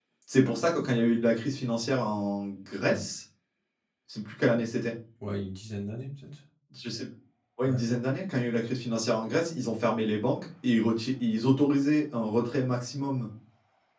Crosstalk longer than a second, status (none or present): none